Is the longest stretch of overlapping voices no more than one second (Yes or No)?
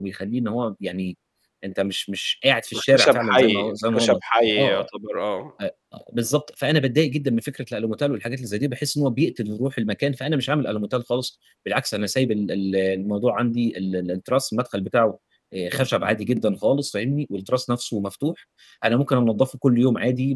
No